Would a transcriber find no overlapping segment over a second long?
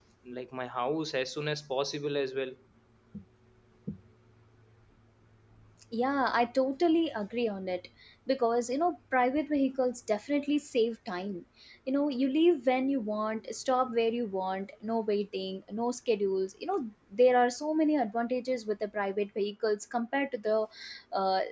Yes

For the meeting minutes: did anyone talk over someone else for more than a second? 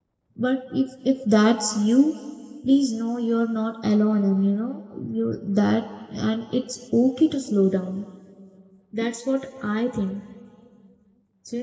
No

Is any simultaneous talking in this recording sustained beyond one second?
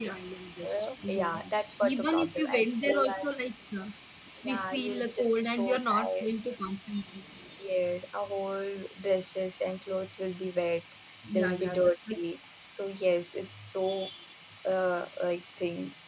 Yes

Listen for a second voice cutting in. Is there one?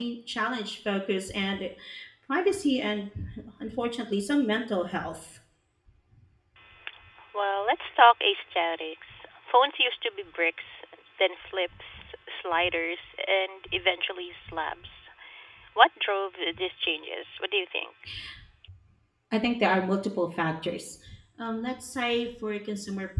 No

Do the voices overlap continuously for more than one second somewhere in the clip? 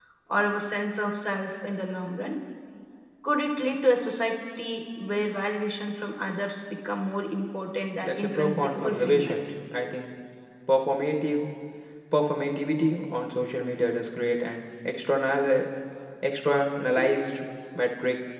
Yes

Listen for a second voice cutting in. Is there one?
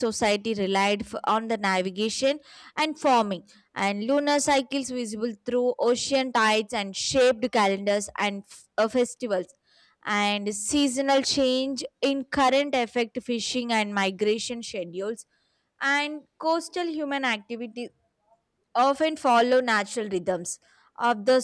No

